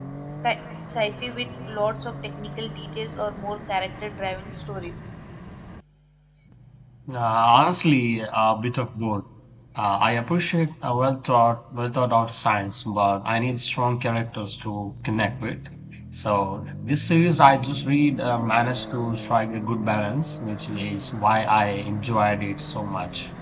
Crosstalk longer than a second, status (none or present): none